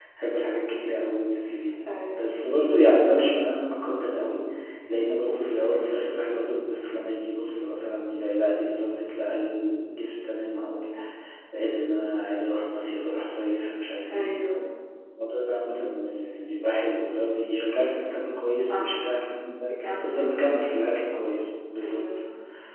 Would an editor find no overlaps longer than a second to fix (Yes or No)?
Yes